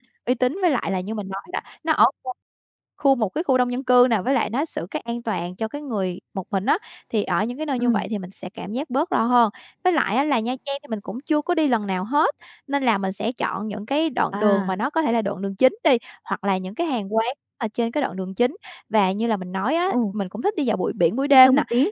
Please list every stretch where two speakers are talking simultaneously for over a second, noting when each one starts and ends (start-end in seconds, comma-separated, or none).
none